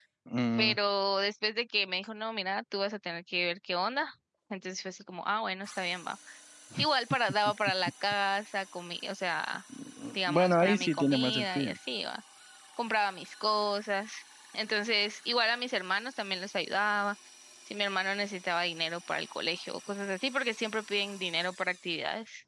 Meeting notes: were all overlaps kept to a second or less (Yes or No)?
No